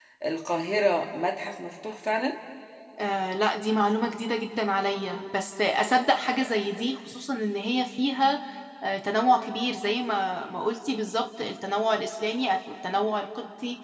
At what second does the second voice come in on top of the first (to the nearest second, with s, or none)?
none